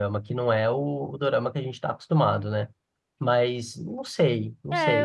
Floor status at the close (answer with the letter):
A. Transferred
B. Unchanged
A